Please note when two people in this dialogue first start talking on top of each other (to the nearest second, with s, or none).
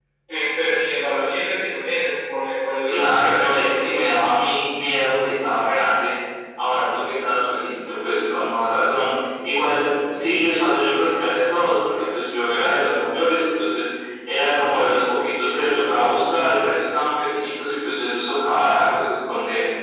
3 s